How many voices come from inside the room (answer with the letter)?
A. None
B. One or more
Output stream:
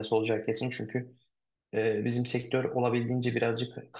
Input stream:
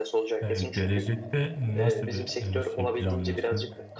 B